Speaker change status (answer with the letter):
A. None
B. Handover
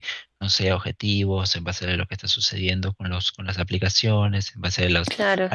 A